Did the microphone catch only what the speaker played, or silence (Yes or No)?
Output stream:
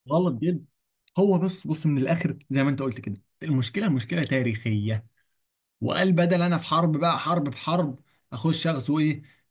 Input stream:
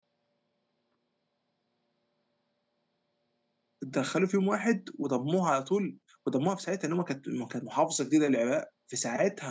No